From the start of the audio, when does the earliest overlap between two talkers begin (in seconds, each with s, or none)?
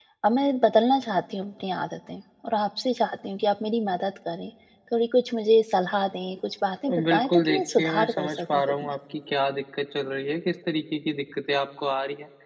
6.8 s